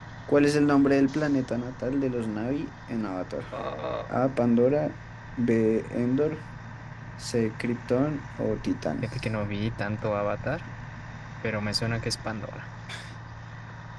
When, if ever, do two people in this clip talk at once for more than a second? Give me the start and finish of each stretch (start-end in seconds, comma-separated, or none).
none